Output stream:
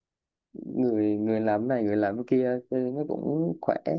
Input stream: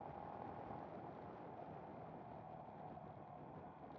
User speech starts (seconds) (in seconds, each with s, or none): none